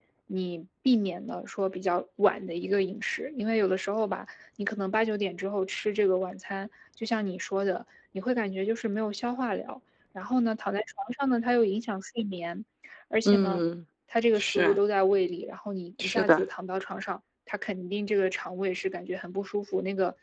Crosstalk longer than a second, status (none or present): none